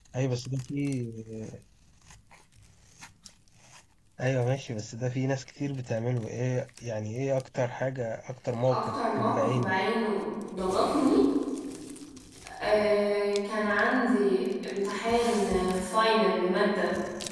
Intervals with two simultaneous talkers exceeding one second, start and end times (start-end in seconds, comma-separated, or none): 8.7-9.9